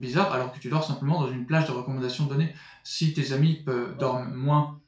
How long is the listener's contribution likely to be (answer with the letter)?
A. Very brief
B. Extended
A